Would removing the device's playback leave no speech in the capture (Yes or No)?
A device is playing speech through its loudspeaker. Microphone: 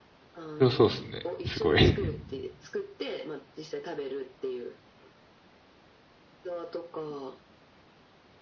No